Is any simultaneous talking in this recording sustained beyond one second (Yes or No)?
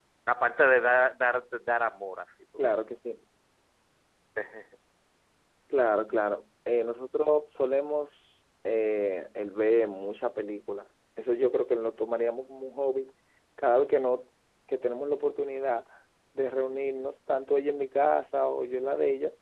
No